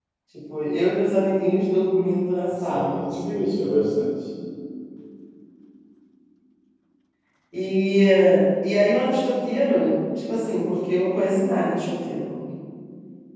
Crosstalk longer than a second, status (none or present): present